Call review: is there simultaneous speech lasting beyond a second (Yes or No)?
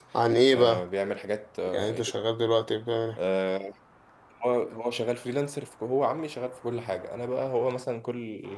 No